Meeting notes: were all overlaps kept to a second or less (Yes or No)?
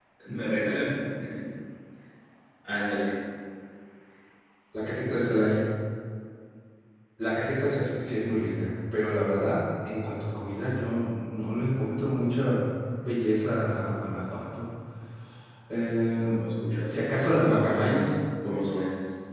Yes